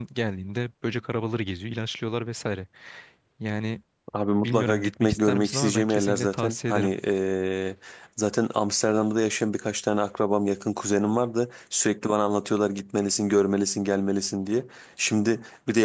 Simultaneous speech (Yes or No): Yes